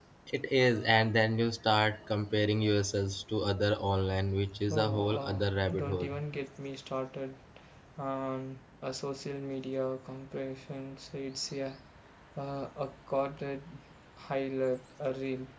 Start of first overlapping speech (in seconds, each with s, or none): 4.7 s